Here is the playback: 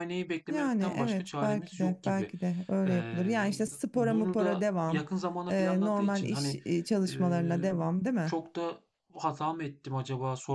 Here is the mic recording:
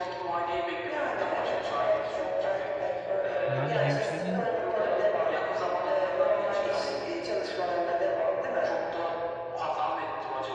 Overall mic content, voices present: both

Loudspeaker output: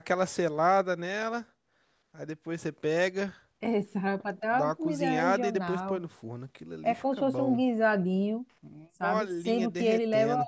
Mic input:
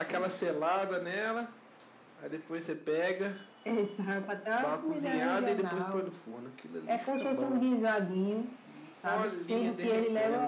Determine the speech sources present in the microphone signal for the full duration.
echo only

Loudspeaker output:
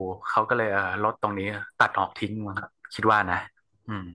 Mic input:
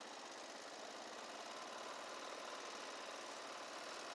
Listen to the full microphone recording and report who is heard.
neither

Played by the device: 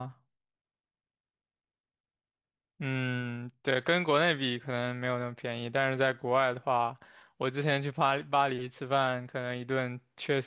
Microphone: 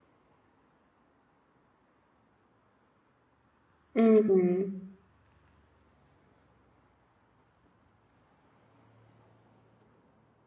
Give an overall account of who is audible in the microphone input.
user only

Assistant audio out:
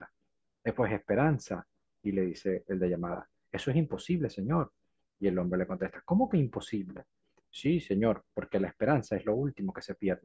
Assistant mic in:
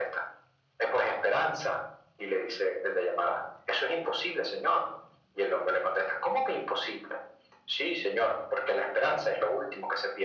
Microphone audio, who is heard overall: echo only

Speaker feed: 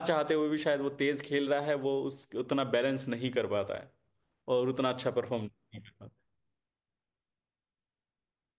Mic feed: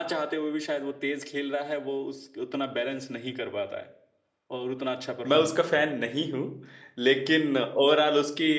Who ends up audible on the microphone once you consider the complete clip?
both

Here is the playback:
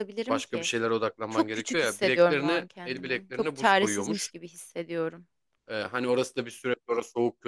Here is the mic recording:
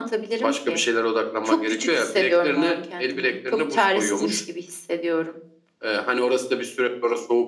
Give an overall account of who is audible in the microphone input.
echo only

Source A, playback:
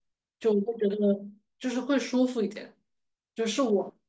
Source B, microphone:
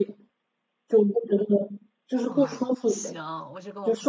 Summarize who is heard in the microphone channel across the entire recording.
both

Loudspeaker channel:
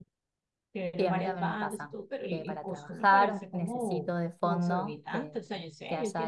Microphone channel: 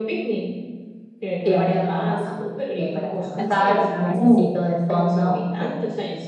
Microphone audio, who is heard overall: both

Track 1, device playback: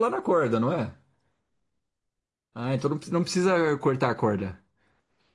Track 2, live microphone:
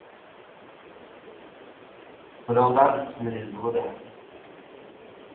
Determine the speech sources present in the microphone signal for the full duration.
user only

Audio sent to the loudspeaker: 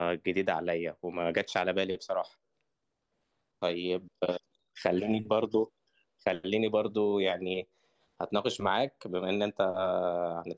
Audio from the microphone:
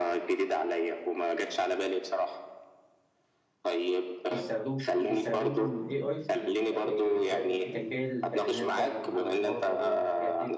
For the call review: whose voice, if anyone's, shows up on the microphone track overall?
both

